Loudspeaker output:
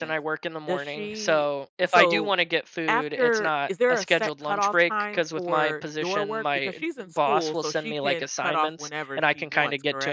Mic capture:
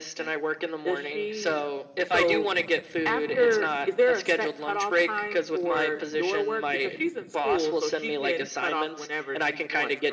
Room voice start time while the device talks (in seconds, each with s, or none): none